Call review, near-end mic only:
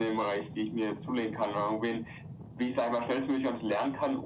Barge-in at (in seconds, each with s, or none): none